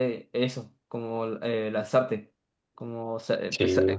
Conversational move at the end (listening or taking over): listening